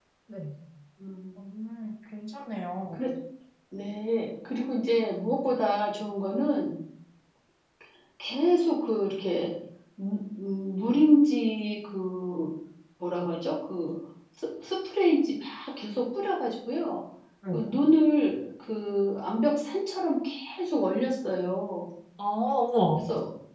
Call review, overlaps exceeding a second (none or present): none